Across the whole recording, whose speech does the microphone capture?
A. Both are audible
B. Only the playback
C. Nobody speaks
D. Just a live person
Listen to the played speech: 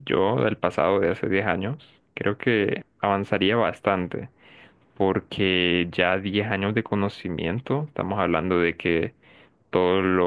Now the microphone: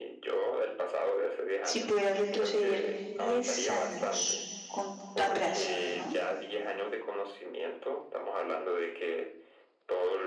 A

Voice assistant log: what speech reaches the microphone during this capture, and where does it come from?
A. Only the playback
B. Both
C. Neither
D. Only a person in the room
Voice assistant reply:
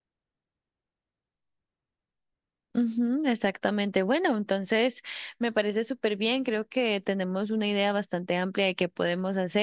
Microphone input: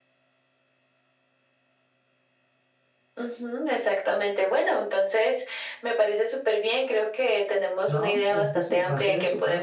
B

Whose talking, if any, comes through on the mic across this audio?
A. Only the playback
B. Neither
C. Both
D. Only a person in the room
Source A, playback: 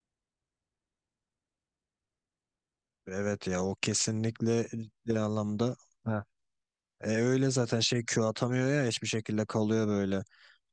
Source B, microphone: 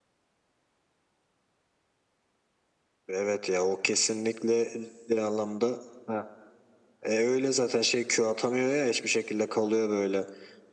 A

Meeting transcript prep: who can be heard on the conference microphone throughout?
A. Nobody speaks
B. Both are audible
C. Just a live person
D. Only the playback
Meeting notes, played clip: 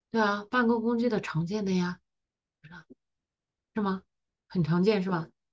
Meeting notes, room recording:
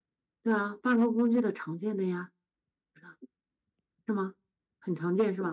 D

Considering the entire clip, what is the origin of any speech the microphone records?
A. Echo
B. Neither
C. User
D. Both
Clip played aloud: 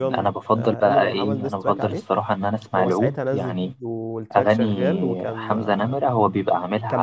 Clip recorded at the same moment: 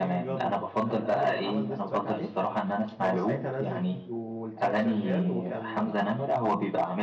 A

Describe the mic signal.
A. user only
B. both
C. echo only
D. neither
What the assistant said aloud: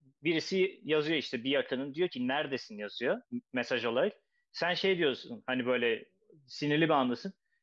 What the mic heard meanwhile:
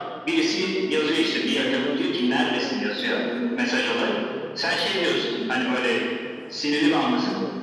B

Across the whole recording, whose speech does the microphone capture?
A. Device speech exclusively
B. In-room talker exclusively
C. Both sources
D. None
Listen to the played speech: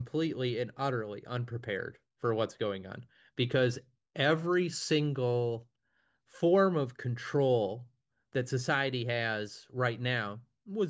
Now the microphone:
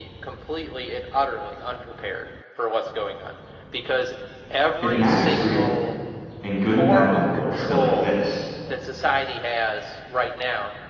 C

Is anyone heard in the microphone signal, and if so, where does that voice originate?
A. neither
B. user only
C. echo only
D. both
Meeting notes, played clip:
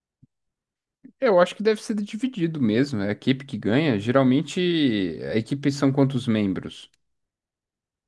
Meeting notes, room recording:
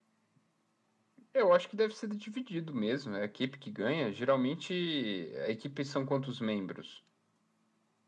C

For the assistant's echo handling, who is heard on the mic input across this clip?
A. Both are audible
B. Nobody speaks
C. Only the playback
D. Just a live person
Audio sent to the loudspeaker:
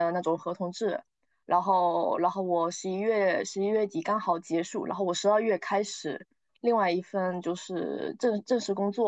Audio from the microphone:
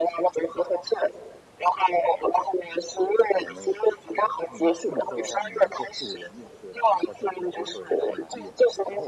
A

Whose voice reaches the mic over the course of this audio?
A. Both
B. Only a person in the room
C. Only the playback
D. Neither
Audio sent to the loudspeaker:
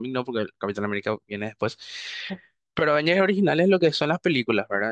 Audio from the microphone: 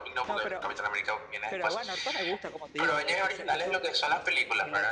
A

